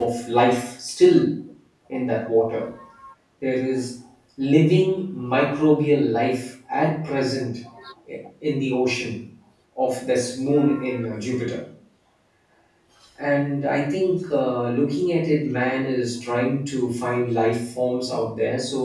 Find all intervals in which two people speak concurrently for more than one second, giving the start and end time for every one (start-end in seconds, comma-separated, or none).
none